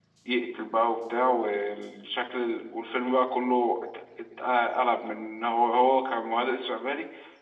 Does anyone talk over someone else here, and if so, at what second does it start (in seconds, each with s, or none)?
none